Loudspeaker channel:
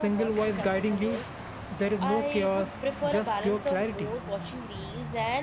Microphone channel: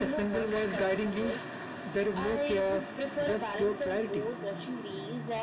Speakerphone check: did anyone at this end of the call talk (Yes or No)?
No